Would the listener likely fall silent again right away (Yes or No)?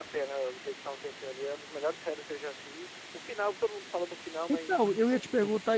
No